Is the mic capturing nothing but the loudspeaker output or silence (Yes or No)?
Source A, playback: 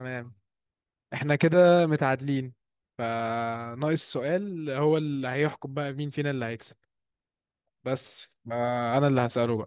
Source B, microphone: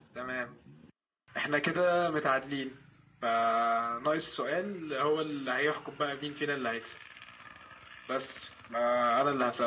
Yes